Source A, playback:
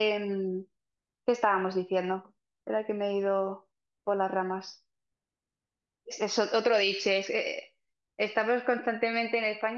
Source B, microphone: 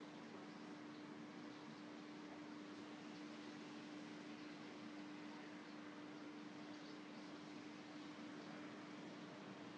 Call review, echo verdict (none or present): none